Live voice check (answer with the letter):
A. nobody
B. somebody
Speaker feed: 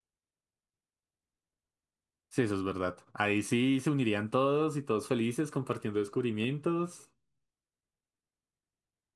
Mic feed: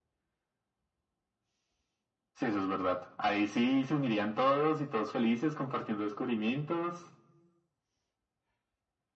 A